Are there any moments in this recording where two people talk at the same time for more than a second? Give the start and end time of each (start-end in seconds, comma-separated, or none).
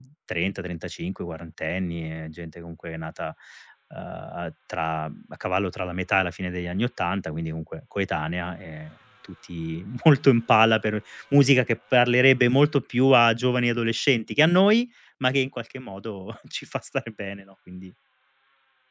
none